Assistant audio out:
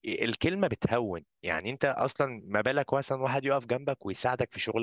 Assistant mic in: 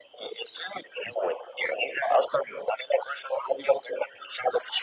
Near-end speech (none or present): none